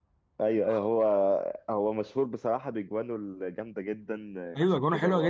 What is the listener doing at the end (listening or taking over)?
taking over